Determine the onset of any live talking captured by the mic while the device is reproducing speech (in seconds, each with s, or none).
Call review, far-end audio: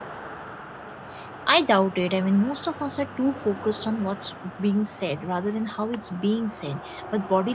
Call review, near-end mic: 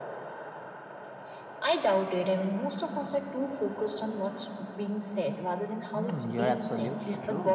5.9 s